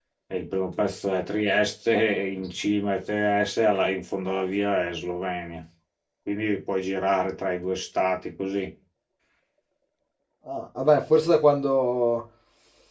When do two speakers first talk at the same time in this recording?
none

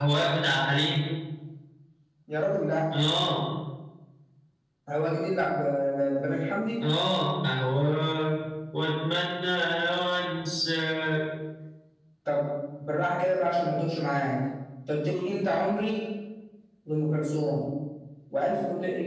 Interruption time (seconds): none

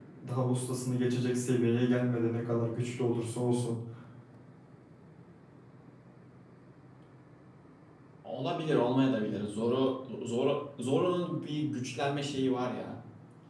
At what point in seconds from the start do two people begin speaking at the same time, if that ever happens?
none

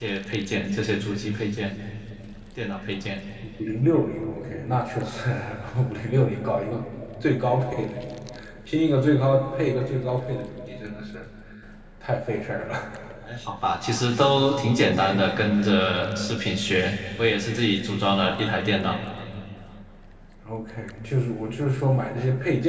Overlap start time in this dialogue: none

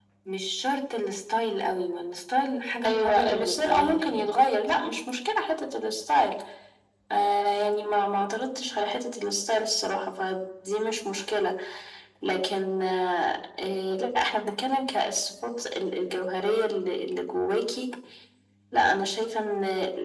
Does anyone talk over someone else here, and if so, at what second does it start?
2.8 s

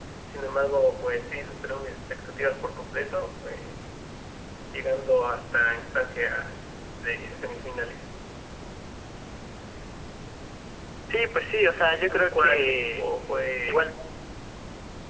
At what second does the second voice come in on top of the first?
11.9 s

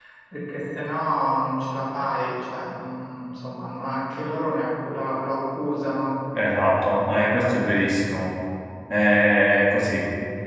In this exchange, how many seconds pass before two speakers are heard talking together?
none

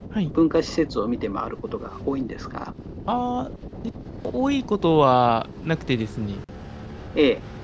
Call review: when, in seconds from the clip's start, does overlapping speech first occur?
none

